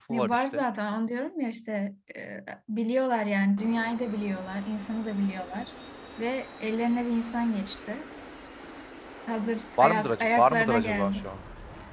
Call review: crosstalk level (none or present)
present